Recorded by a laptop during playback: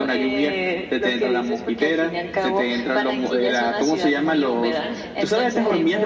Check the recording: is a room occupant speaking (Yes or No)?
Yes